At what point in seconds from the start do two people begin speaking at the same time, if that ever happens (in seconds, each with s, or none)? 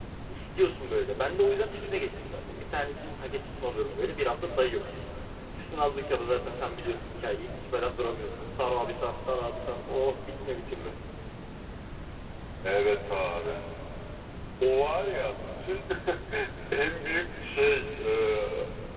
none